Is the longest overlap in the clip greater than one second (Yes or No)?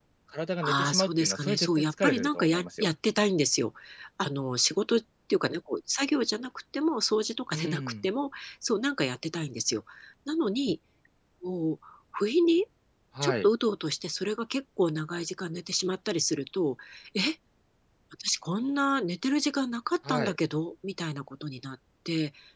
Yes